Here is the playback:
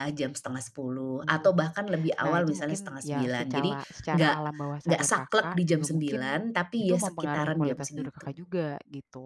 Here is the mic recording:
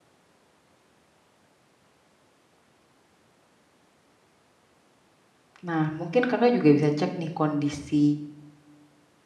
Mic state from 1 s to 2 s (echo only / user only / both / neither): neither